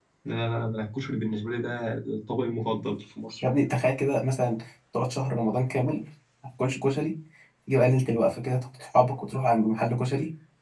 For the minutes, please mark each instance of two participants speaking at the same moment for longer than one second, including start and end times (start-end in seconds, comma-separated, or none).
none